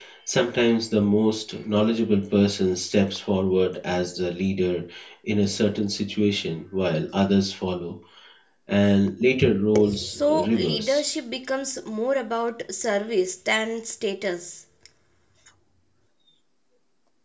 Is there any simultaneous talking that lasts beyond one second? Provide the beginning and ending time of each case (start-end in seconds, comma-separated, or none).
9.9-11.2